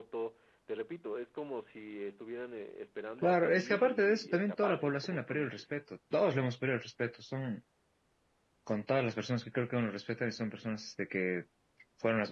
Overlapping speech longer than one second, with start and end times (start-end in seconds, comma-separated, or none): 3.2-5.6